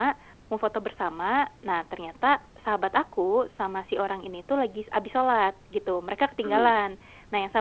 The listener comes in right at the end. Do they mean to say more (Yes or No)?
No